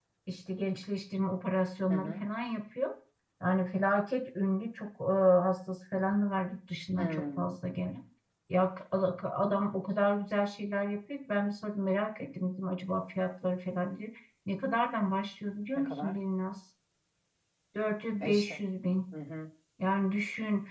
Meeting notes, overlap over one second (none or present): none